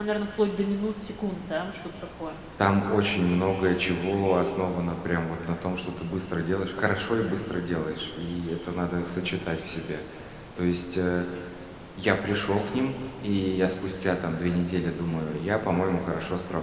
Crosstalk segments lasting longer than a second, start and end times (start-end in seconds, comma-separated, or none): none